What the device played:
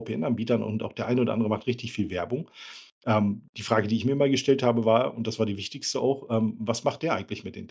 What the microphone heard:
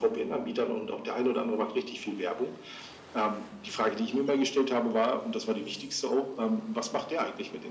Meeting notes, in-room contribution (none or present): none